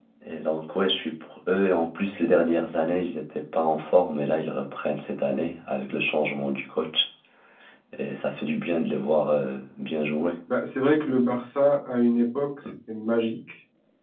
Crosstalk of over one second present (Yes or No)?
No